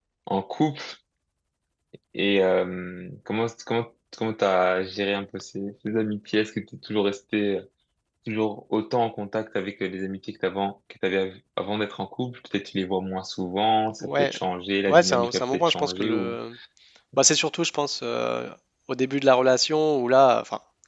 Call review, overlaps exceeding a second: present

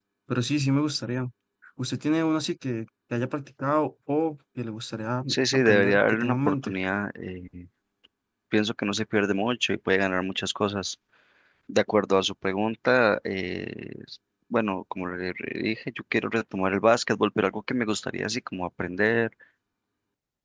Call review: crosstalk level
present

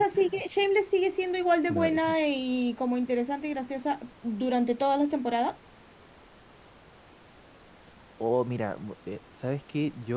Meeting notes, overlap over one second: none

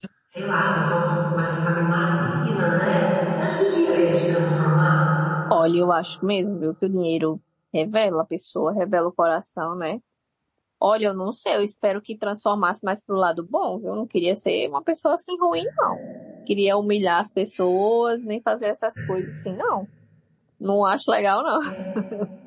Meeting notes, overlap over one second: none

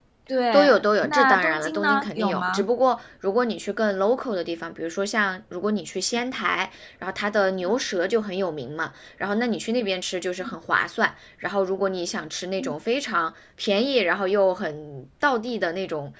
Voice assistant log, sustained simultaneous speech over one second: present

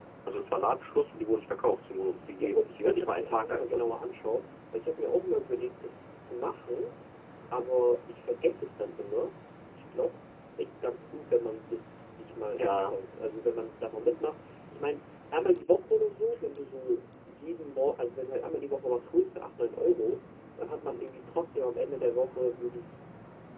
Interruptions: present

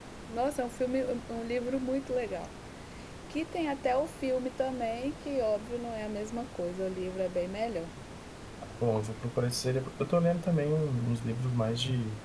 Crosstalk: none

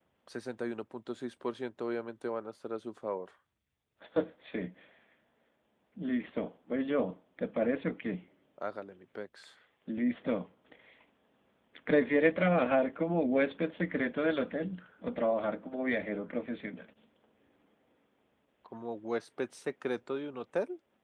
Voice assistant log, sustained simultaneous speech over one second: none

